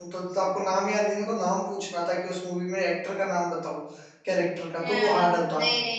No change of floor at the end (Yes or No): No